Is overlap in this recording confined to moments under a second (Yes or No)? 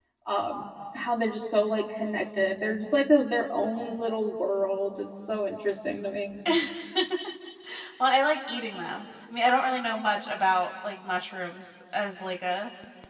Yes